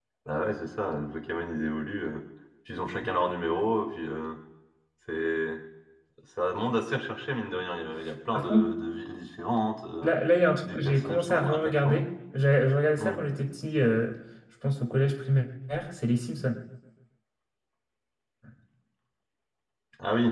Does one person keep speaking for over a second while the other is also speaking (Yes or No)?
Yes